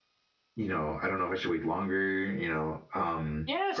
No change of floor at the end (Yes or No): No